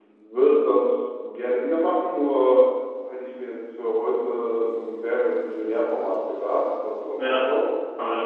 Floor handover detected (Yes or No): Yes